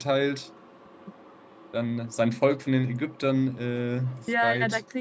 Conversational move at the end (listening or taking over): taking over